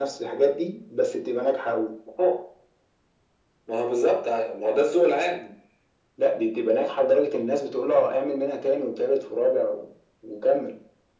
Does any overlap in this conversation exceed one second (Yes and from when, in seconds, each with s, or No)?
No